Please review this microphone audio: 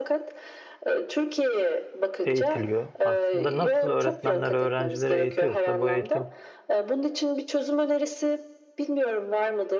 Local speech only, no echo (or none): eğitiliyor. Aslında nasıl öğretmenler öğrencileri eğitiyorsa bu eğitim